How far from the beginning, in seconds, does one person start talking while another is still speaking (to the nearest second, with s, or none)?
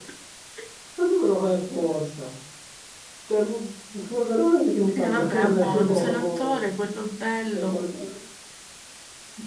5 s